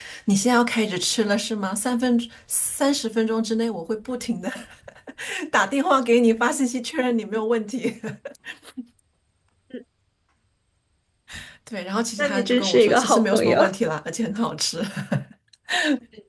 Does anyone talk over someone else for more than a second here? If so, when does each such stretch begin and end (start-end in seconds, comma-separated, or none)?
12.2-13.6